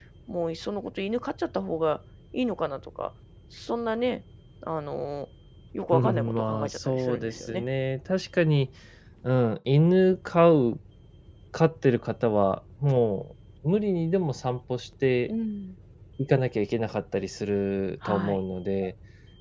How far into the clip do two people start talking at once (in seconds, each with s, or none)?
5.9 s